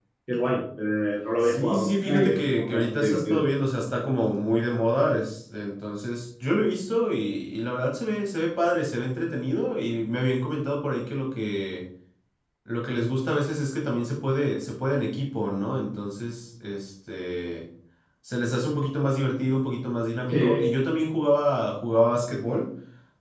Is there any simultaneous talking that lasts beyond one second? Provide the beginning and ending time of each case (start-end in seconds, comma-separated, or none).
1.4-3.4